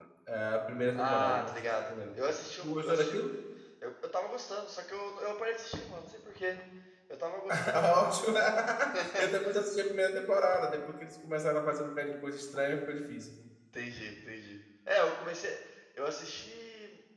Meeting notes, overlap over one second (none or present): present